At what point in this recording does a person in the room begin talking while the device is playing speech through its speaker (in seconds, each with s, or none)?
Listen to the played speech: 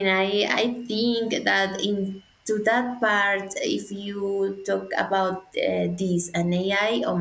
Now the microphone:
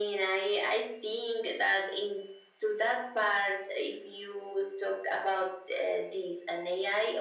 none